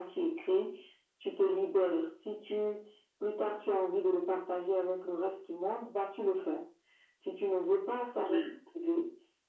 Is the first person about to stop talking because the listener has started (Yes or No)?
No